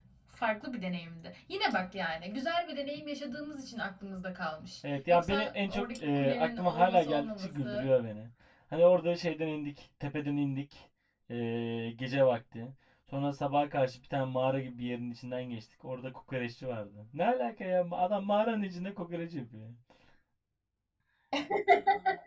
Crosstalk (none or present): present